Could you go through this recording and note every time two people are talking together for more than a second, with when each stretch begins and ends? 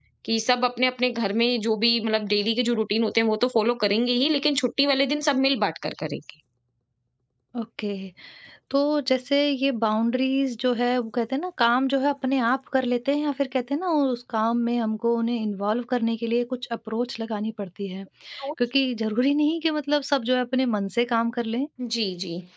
none

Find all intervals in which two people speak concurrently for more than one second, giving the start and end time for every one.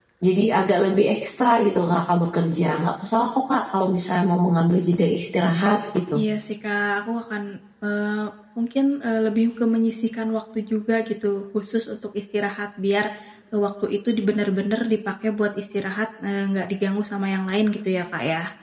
none

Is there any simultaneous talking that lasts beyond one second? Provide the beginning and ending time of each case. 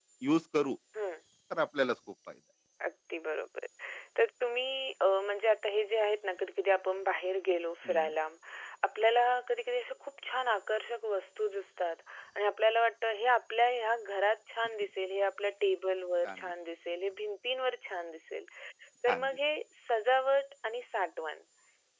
none

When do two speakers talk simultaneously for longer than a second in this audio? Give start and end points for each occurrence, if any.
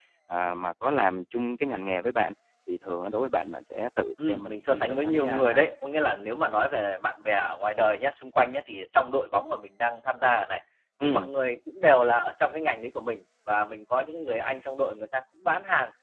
4.3-5.6

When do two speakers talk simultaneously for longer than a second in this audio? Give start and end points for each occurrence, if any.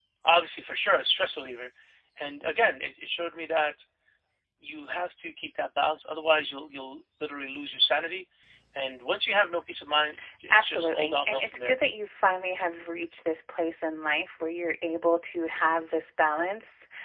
10.5-11.8

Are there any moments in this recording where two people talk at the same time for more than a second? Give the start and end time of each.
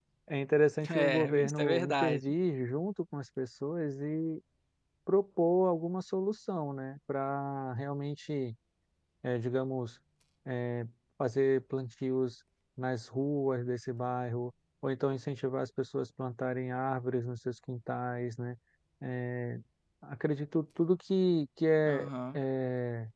0.9-2.2

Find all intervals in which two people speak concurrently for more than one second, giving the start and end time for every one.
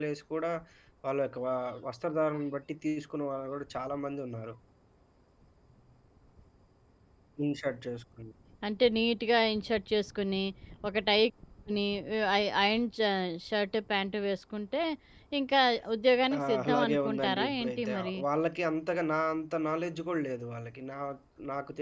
16.4-18.2

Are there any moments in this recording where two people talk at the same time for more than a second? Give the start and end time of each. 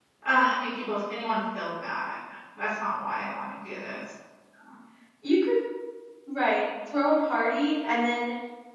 none

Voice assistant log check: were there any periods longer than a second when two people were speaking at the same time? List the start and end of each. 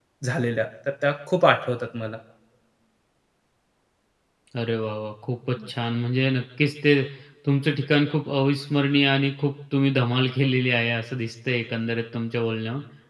none

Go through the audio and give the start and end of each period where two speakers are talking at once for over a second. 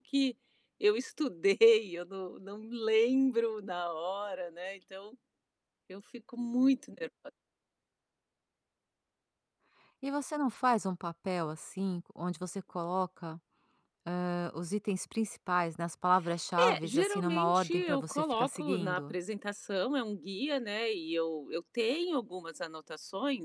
16.6-19.1

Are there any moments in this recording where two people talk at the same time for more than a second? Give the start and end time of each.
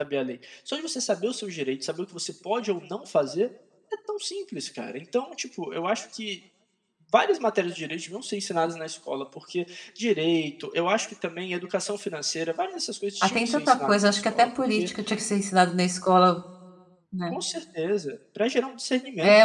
13.2-14.9

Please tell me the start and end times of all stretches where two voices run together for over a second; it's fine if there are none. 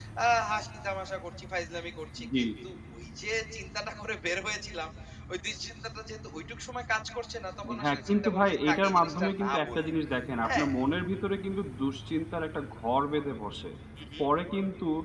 7.8-9.9

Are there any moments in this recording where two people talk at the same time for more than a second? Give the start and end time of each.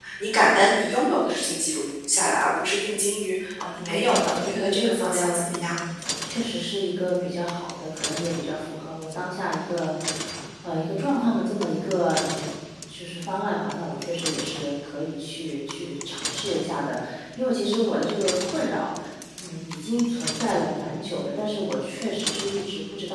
3.8-5.8

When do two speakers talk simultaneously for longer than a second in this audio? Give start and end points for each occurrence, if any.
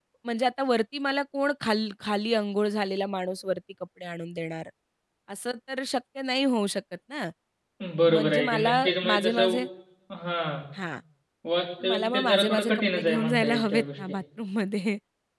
8.0-9.6, 11.9-13.8

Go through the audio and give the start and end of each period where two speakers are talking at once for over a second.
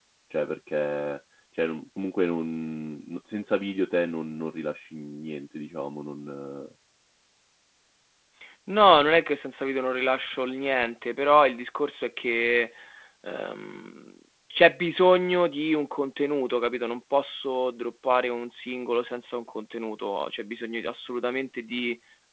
none

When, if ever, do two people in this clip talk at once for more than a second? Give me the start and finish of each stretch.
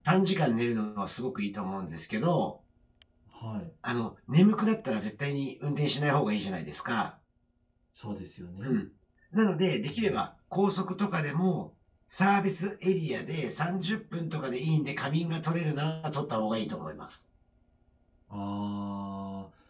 none

